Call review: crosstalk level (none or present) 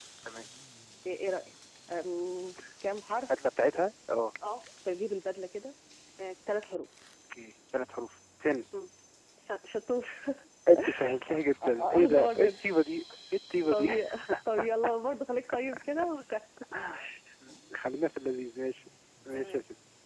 present